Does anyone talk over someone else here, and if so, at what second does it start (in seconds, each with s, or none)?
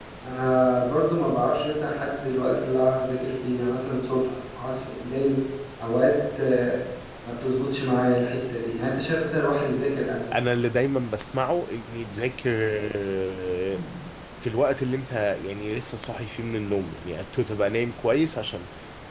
none